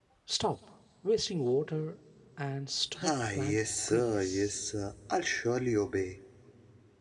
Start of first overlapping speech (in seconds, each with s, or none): 3.0 s